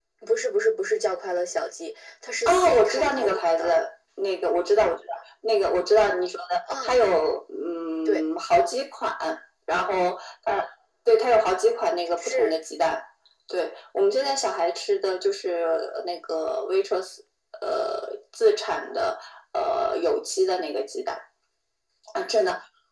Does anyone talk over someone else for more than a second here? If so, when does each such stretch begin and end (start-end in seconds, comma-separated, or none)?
2.4-3.8